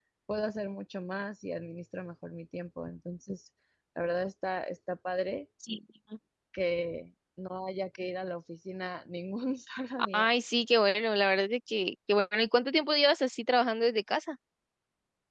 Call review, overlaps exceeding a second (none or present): none